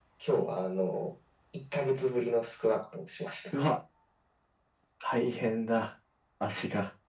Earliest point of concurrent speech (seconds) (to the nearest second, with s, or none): none